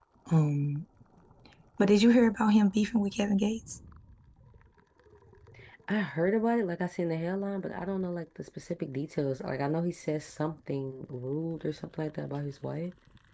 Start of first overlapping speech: none

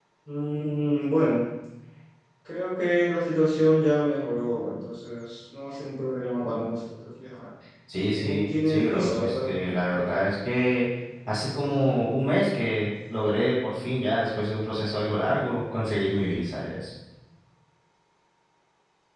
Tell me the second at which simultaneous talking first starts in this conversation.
8.1 s

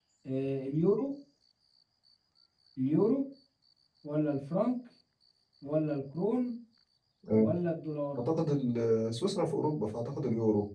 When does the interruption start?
none

